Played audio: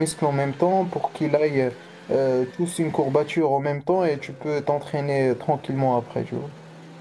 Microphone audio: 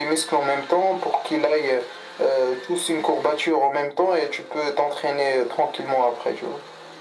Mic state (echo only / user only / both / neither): echo only